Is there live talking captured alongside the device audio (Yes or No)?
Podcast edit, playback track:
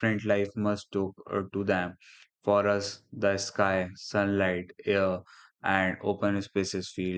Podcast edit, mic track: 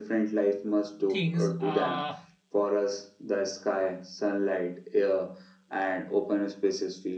Yes